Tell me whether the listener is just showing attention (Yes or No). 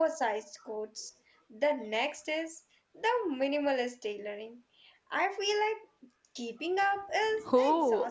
No